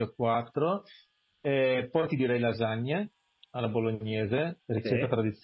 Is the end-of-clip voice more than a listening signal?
No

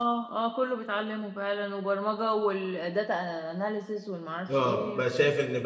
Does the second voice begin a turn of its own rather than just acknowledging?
Yes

